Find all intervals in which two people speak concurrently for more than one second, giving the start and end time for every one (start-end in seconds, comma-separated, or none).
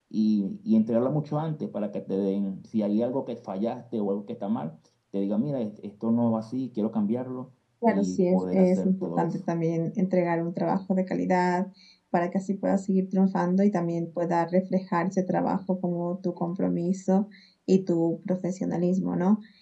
7.9-9.3